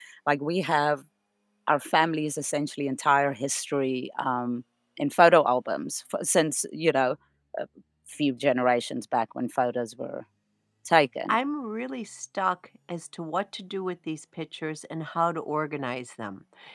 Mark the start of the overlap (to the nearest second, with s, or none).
none